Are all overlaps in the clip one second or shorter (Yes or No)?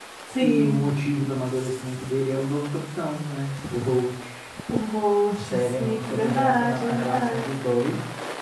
No